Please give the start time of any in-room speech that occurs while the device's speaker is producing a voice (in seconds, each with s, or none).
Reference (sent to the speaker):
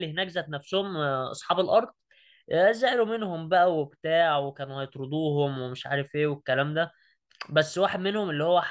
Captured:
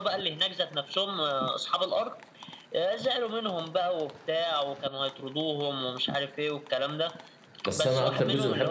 7.6 s